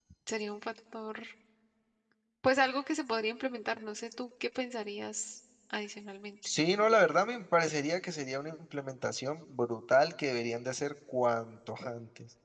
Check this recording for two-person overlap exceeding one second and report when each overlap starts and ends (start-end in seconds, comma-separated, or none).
none